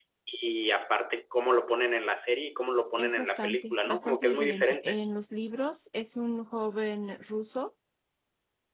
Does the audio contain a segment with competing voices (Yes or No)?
Yes